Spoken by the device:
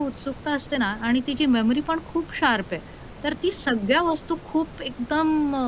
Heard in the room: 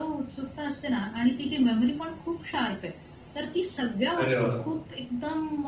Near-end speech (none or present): present